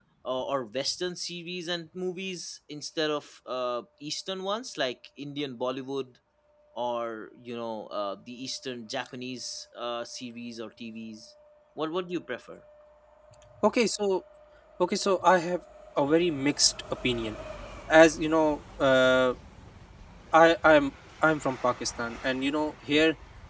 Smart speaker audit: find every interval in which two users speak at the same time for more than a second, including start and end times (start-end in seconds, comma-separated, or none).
none